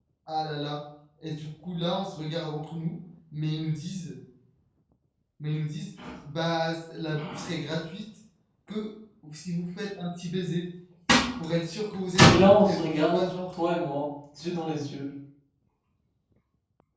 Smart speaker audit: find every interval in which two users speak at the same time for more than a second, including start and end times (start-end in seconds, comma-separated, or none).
12.2-13.5